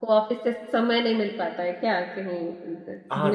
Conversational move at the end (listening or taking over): taking over